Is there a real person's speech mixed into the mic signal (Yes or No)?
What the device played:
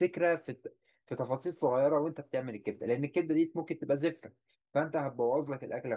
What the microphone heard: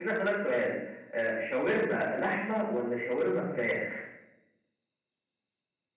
Yes